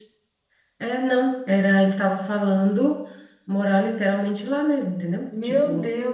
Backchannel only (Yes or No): No